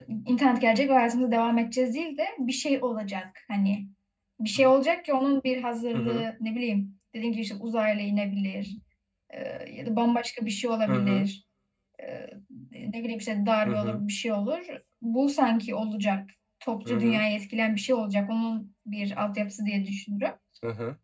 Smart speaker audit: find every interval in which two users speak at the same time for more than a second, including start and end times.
none

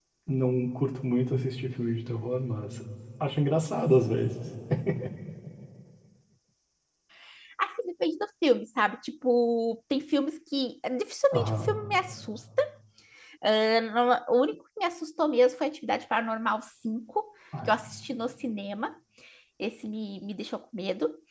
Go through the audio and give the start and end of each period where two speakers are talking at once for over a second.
none

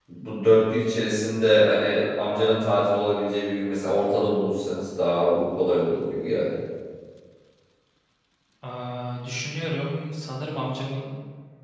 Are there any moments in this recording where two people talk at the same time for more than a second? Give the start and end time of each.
none

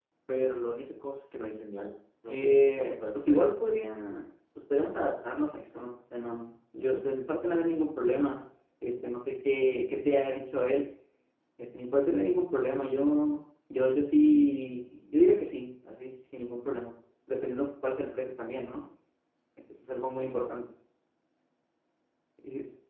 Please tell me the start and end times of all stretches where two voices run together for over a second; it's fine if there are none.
2.3-3.5

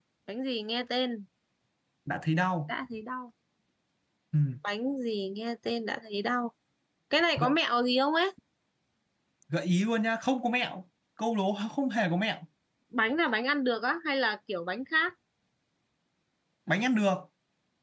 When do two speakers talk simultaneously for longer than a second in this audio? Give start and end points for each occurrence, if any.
none

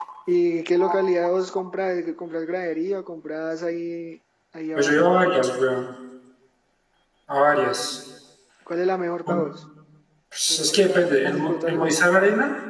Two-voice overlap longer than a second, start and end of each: 10.5-12.0

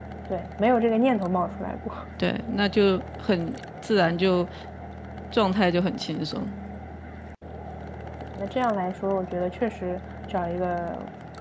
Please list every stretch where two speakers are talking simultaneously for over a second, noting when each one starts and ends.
none

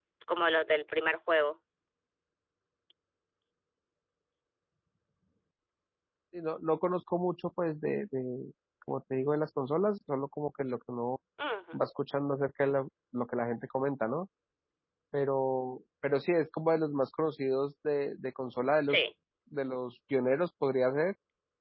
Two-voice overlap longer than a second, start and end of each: none

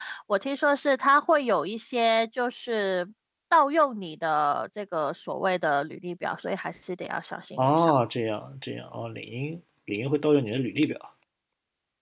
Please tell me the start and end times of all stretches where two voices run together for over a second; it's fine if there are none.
none

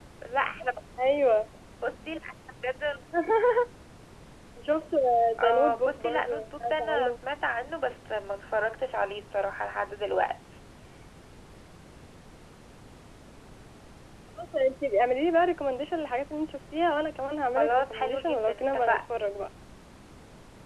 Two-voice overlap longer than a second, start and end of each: 5.4-7.1, 17.6-19.0

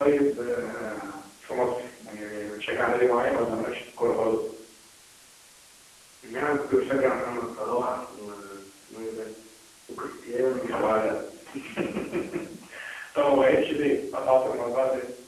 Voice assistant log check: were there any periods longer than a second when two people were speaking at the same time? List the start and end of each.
none

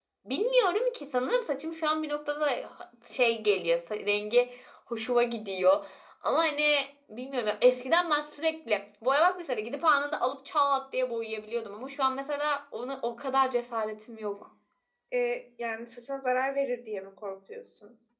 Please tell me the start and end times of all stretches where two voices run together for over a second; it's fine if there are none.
none

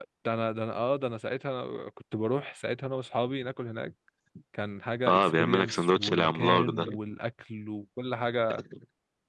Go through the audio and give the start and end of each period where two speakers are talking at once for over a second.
5.0-6.9

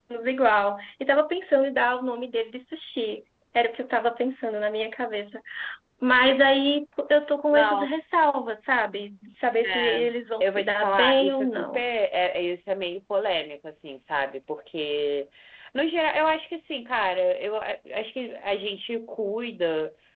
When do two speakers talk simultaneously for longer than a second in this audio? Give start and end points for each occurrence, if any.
10.4-11.8

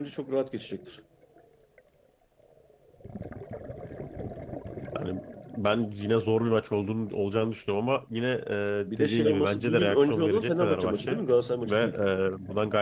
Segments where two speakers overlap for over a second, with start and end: 8.9-11.2

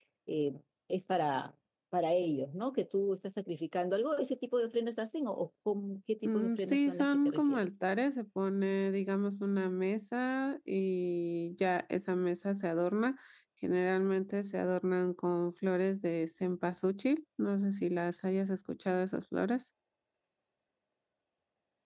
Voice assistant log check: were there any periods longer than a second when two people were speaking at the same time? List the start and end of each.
6.2-7.7

